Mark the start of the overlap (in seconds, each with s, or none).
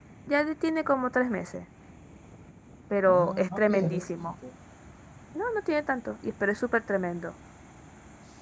3.0 s